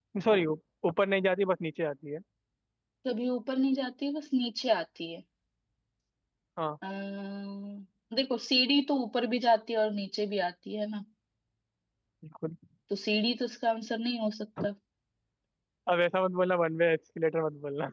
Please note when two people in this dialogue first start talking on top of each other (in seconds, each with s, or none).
none